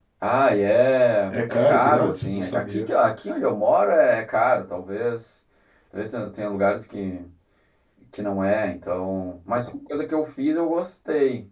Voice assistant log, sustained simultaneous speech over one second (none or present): present